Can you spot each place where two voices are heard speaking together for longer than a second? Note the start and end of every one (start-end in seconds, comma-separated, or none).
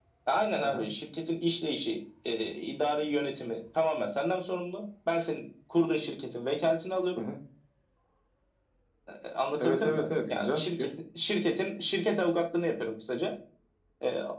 9.6-10.9